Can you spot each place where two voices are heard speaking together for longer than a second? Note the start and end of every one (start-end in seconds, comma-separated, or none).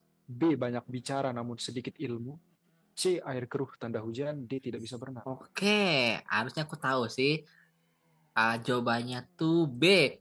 none